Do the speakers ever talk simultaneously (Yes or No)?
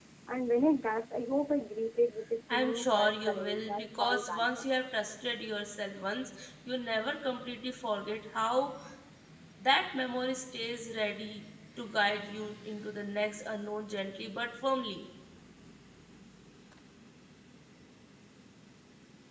Yes